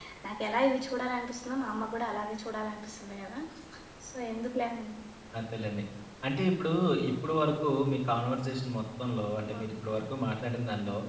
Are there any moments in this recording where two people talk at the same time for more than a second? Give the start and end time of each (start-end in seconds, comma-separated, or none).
none